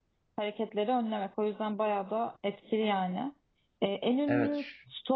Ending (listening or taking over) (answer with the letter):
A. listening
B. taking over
A